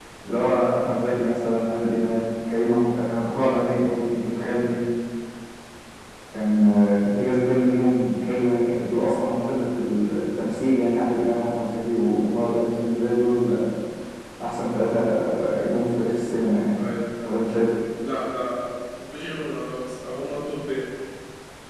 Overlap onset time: none

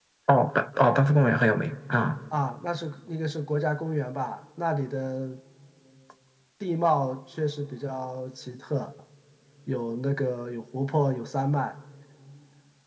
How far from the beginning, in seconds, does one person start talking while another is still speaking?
none

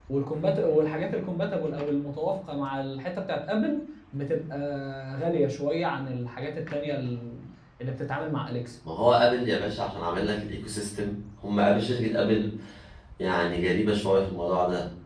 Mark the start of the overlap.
none

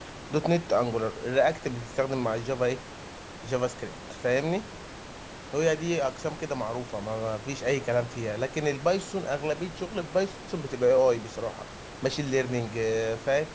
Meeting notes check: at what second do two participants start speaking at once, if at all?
none

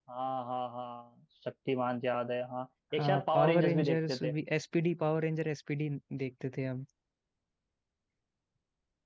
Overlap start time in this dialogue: 3 s

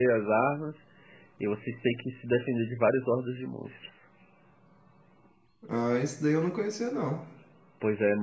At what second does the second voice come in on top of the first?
none

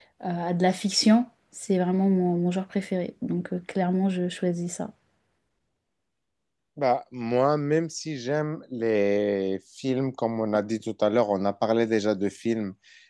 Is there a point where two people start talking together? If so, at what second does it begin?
none

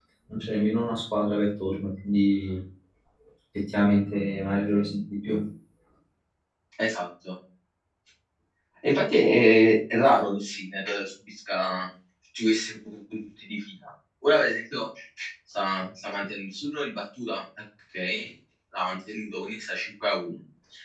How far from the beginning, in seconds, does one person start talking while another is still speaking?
none

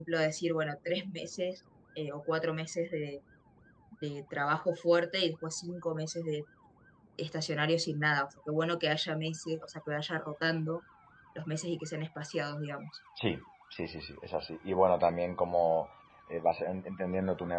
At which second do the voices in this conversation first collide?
none

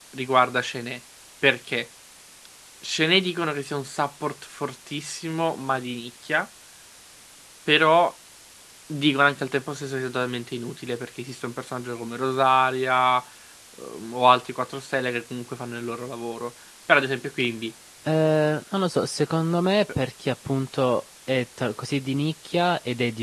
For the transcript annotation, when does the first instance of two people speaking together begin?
none

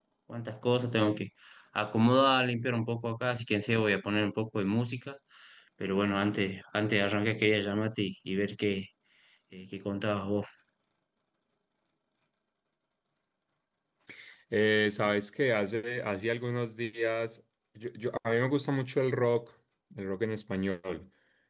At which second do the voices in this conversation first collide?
none

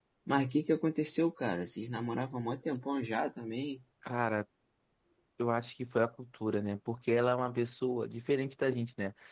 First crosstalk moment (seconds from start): none

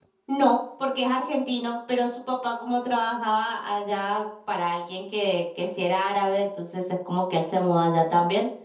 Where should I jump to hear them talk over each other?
none

